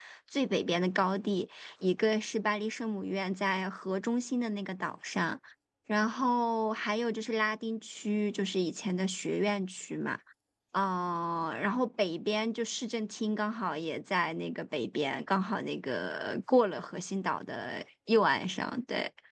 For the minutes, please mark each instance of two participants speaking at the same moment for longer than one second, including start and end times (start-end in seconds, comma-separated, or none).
none